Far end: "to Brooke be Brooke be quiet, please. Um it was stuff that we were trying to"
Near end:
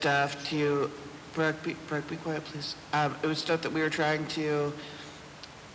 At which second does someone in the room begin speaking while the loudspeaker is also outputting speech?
none

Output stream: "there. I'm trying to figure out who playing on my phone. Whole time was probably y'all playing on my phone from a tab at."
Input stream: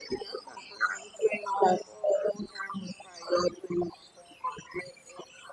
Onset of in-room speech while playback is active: none

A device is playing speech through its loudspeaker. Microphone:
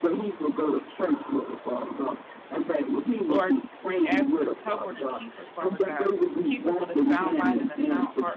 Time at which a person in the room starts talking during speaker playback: 3.3 s

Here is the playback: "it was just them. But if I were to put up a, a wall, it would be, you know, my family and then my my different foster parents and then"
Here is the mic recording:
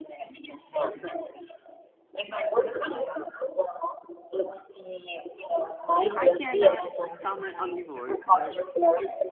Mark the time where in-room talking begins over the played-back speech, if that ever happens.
6.2 s

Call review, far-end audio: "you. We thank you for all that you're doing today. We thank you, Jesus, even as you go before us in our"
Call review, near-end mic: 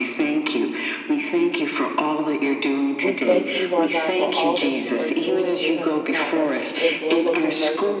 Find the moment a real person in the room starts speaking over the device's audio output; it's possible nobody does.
3.0 s

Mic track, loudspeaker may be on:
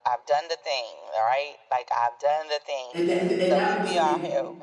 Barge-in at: 2.9 s

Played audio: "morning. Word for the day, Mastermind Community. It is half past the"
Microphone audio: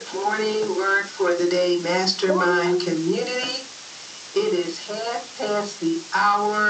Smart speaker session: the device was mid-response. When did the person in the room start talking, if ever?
2.2 s

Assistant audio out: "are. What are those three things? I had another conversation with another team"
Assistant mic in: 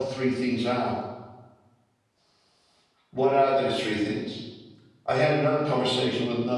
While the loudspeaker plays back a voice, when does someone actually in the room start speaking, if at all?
none

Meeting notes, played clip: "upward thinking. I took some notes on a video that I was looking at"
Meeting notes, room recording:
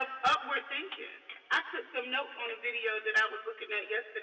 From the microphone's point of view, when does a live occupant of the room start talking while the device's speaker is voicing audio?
none

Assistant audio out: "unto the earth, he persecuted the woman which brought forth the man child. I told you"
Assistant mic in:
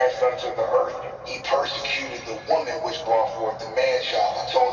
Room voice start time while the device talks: none

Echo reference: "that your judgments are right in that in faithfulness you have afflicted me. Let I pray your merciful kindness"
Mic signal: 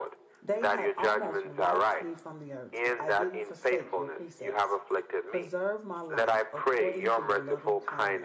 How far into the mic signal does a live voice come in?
0.4 s

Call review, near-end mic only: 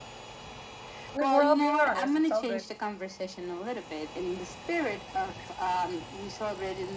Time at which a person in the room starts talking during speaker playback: 1.1 s

